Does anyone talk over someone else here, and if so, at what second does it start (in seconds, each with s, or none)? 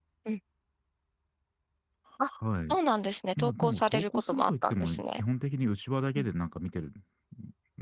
3.4 s